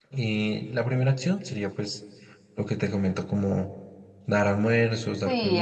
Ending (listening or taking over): taking over